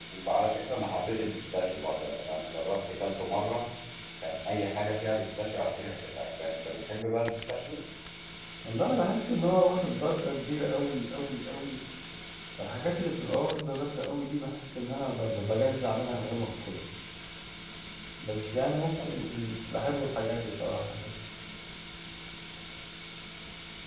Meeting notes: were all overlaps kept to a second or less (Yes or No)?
Yes